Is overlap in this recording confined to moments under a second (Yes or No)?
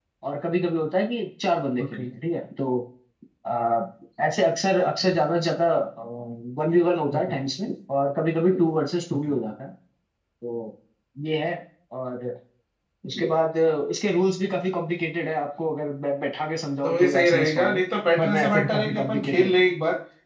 No